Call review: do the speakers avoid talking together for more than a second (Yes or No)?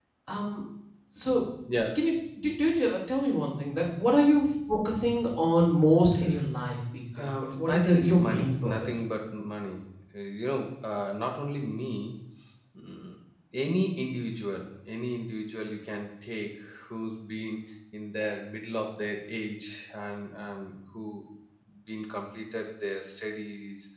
No